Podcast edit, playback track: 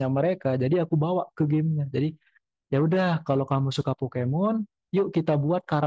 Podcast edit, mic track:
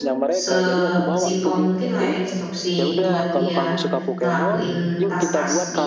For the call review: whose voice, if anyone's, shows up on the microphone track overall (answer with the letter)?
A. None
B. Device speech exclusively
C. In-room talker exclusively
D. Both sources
D